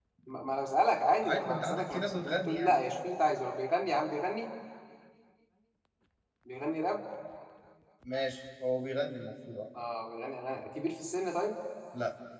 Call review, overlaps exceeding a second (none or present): present